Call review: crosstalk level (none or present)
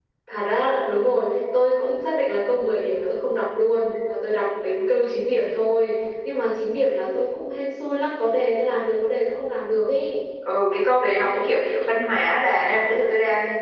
none